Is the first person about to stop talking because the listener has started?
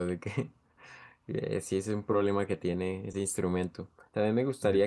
No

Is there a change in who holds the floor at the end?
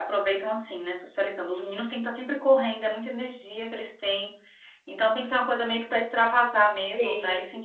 No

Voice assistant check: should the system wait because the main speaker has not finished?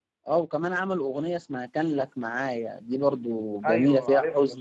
No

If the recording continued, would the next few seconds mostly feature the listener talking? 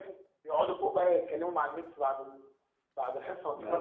No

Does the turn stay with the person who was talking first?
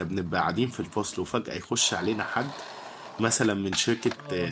Yes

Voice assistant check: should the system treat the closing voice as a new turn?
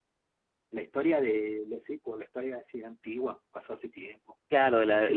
Yes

